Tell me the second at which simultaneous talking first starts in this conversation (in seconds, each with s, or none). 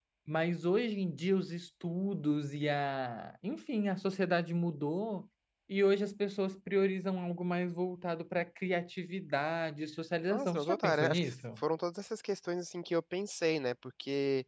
10.3 s